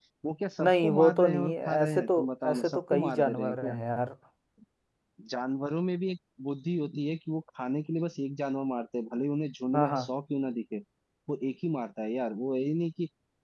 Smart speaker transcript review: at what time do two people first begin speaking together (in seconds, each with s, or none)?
0.6 s